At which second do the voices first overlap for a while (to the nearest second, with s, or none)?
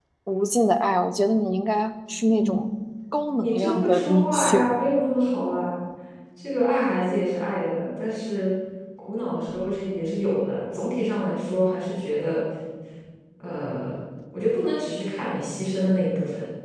3 s